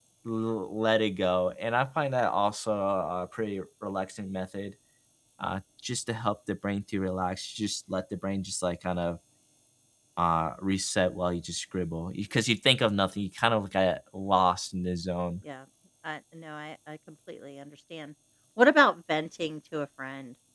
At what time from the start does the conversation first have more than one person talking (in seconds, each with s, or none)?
none